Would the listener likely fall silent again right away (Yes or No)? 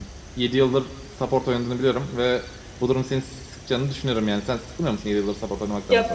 No